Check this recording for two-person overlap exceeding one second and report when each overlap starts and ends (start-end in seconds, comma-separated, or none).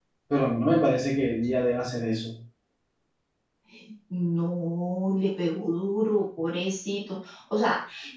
none